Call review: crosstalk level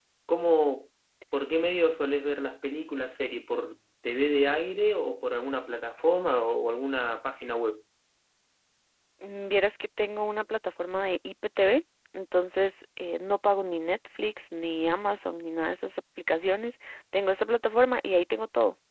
none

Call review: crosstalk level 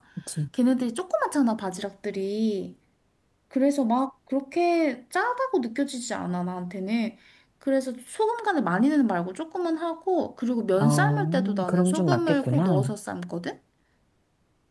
present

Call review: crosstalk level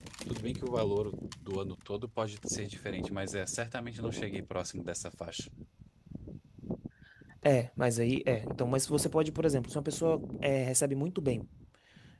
none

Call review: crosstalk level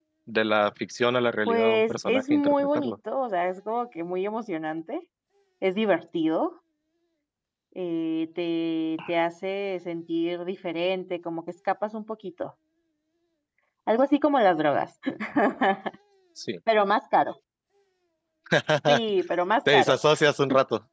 present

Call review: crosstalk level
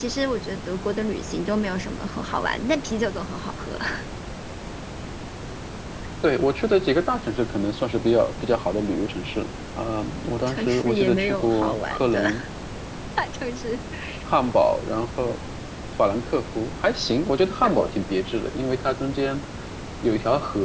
present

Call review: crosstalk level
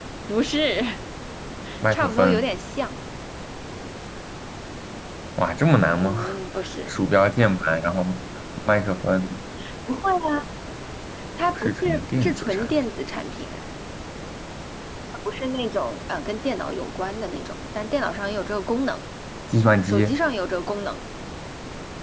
present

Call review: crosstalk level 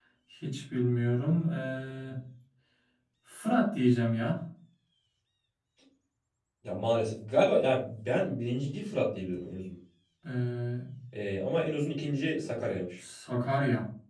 none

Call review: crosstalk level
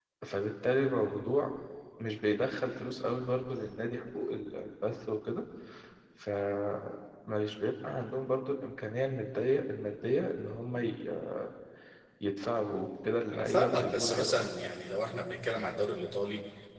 present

